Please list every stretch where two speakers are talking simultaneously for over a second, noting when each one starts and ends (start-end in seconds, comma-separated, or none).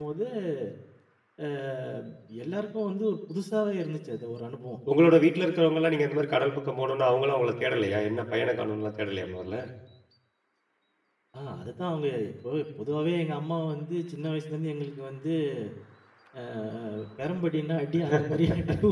none